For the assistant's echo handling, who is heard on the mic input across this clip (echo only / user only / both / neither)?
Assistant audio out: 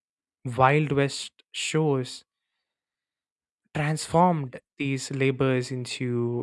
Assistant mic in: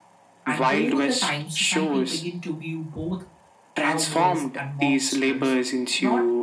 both